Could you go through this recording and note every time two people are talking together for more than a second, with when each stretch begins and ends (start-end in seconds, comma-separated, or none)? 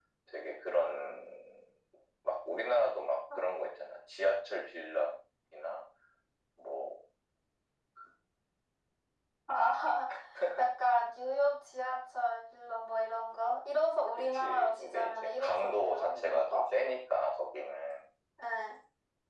14.3-16.6